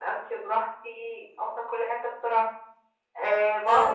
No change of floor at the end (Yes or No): Yes